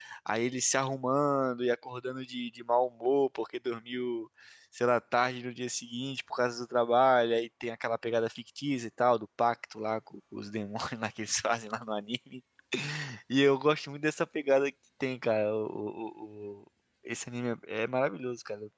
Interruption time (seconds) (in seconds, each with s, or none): none